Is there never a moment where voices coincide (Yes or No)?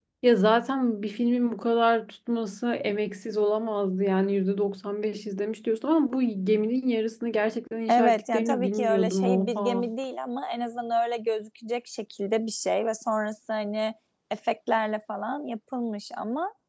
No